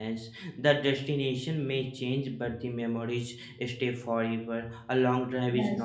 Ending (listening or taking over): listening